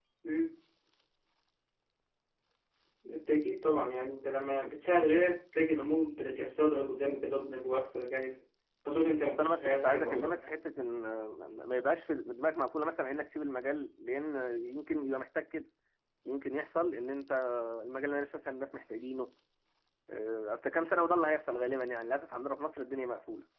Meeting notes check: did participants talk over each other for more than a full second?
Yes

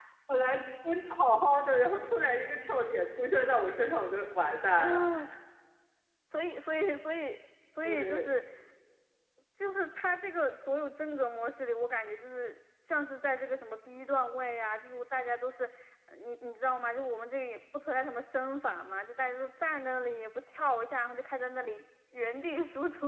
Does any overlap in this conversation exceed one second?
No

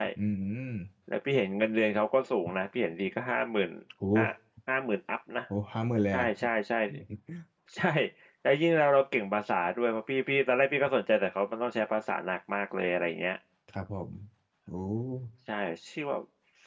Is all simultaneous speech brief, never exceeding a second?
Yes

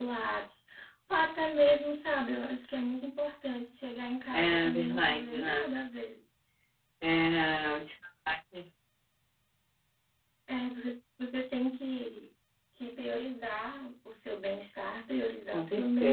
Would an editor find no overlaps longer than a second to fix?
No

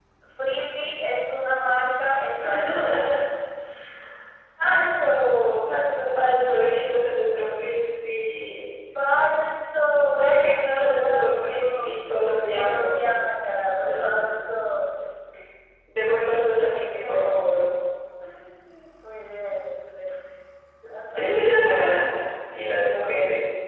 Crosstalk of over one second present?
Yes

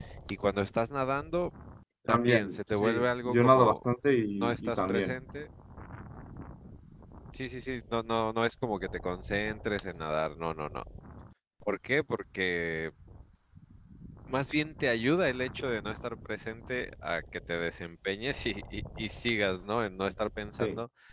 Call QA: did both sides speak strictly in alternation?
No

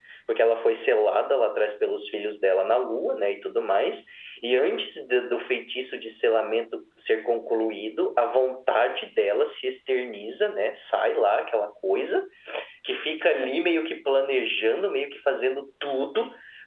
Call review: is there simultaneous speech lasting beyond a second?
No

